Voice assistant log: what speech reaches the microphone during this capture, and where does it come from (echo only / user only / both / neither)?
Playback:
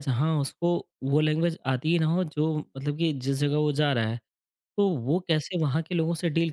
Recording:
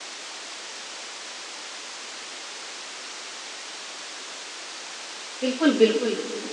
user only